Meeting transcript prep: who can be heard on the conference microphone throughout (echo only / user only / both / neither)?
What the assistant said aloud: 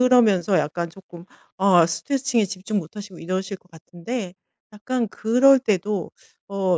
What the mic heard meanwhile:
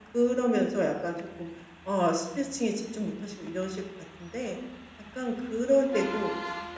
echo only